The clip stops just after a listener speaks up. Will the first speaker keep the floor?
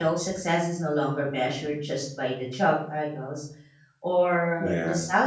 Yes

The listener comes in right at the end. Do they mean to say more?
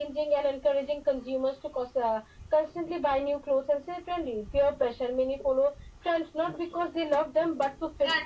Yes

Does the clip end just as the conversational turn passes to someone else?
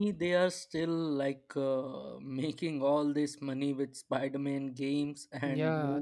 Yes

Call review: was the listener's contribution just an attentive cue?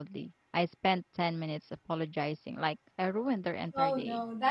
No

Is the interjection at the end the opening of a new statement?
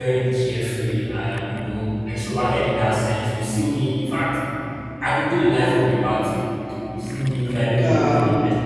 No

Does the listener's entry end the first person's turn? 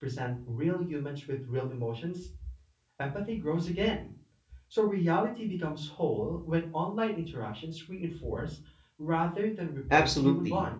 Yes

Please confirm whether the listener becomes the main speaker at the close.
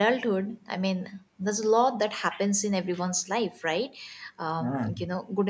No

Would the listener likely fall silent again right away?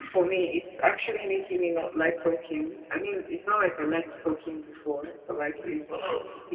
Yes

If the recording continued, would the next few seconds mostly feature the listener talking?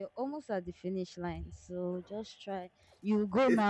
No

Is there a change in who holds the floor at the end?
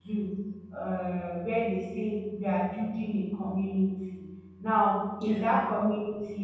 No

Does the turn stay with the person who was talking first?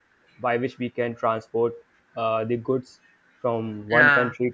Yes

